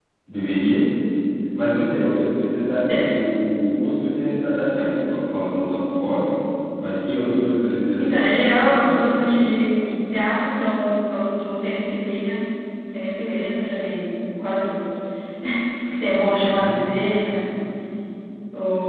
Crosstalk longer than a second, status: present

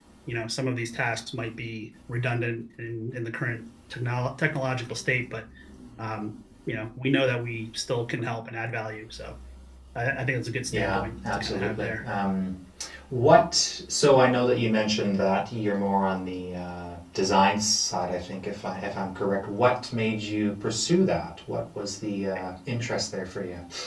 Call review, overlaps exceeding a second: present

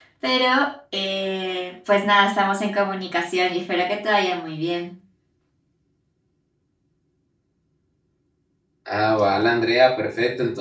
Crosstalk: none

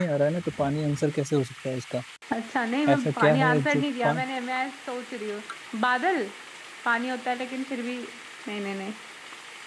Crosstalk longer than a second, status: present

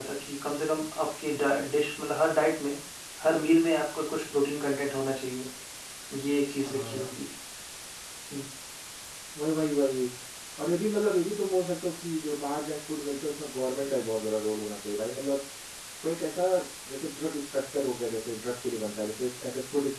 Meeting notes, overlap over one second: none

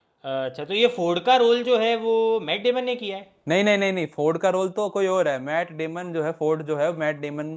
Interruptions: none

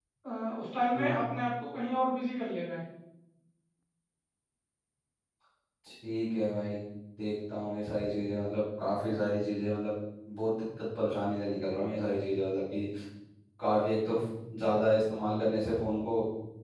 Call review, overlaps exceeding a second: none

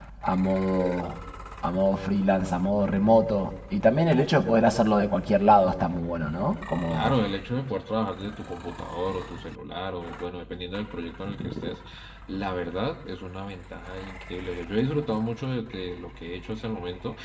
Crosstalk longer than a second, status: none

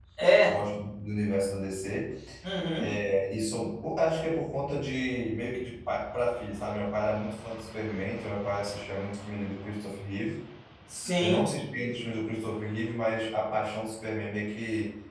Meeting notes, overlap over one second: none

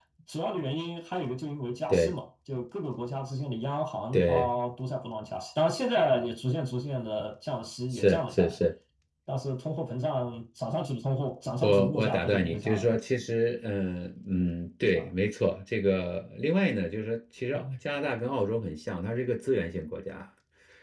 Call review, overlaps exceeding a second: present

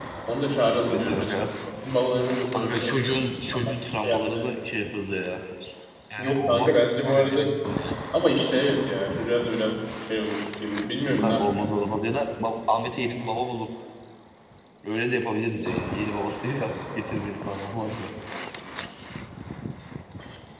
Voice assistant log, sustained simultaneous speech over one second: present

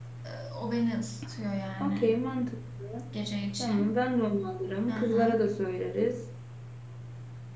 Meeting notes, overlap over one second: none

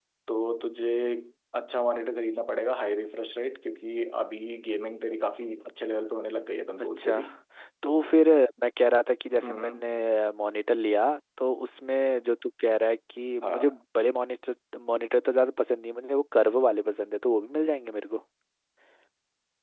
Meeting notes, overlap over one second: none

